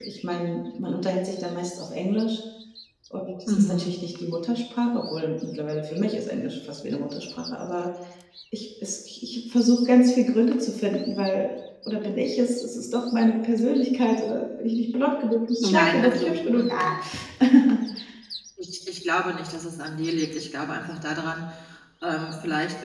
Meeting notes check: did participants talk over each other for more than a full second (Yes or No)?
Yes